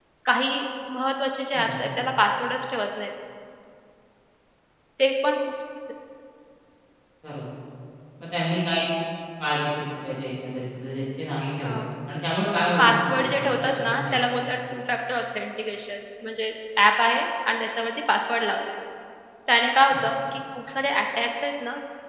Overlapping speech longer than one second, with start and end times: 12.8-14.4

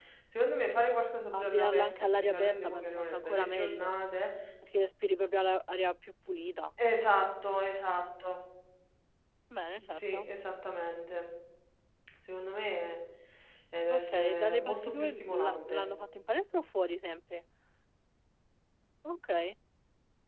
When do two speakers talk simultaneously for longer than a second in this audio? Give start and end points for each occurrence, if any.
1.3-3.9, 13.9-15.8

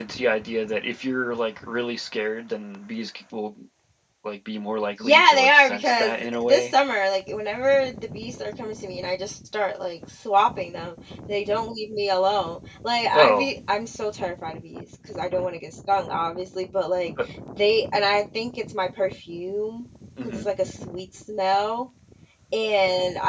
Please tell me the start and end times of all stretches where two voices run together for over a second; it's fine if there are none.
5.0-6.7

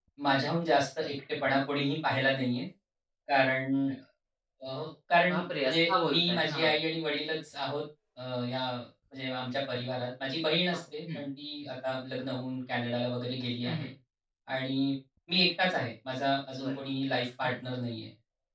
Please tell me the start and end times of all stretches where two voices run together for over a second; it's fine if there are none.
5.3-6.7

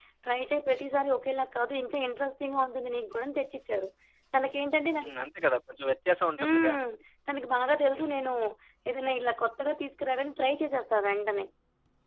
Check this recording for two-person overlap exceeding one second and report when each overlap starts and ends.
none

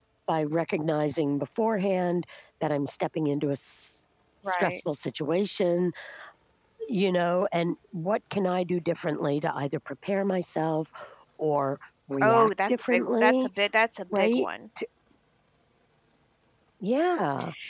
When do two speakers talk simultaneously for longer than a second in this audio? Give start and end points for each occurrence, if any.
12.2-13.5

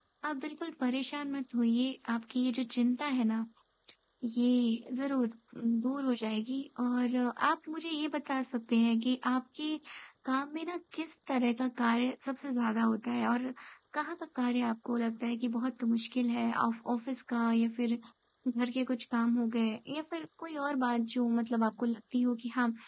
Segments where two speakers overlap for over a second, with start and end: none

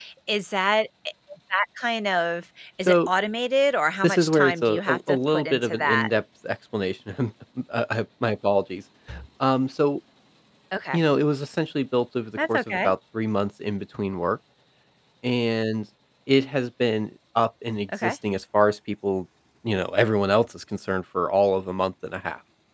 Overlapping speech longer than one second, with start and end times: 4.0-6.1

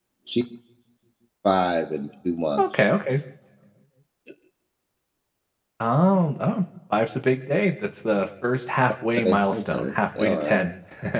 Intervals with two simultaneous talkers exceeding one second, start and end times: 9.2-10.7

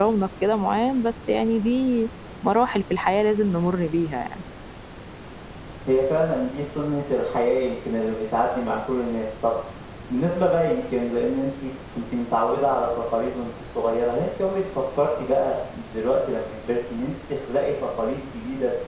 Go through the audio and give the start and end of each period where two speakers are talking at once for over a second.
none

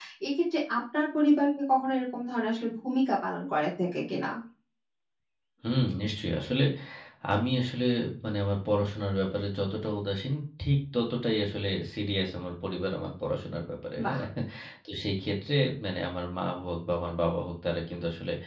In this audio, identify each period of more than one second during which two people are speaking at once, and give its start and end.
none

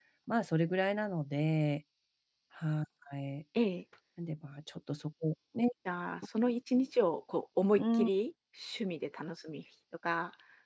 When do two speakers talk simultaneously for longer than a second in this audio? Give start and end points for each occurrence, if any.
none

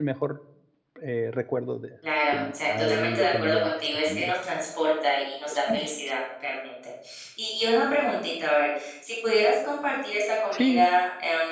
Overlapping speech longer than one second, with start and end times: 2.3-4.3

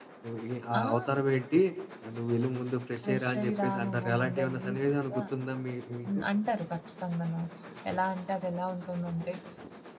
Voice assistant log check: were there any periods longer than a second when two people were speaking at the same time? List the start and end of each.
3.0-5.2

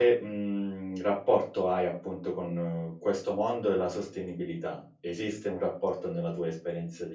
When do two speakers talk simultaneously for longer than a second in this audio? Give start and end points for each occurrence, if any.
none

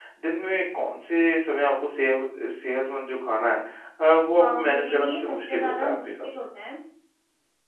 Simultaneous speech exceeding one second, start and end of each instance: 4.4-6.3

